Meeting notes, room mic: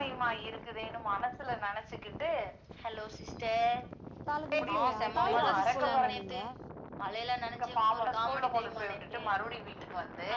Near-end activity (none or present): present